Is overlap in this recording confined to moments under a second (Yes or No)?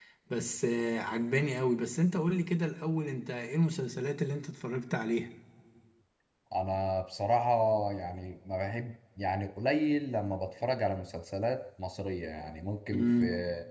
Yes